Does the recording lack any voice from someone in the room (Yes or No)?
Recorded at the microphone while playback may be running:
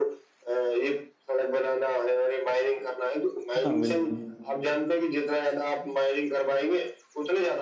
No